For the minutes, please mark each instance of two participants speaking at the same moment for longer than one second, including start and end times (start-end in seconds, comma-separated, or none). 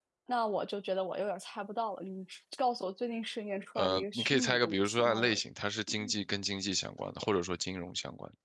3.8-5.3